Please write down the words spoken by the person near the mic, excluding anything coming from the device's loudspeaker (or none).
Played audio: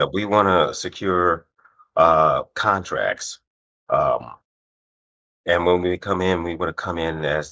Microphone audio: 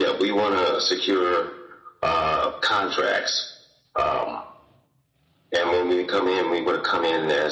none